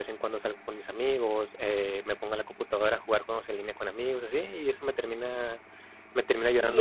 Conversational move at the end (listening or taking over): taking over